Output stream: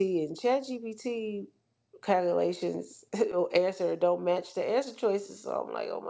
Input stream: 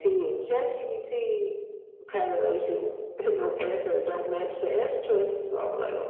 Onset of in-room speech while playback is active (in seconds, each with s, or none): none